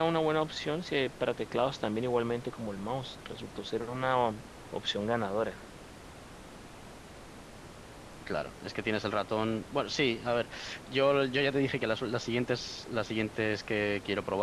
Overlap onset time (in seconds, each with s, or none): none